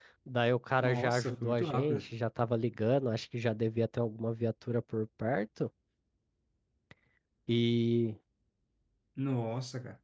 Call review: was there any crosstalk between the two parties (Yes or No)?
Yes